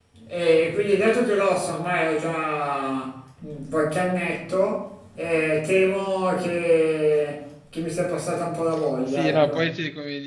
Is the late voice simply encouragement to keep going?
No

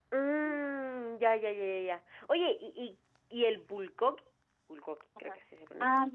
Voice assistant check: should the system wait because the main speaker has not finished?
No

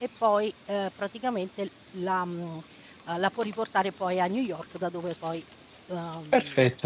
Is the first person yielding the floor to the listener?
Yes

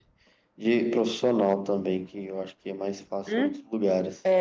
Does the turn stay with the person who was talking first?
No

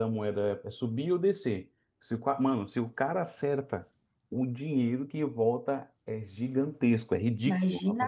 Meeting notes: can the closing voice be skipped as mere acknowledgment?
No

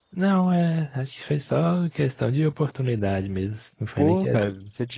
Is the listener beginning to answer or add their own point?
Yes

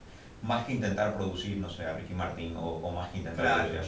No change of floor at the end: Yes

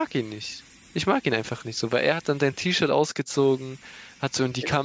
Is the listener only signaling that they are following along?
Yes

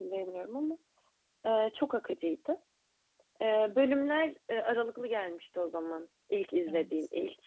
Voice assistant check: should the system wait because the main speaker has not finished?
Yes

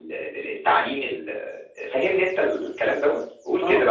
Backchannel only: No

